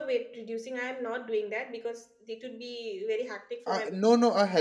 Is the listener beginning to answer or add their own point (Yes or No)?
Yes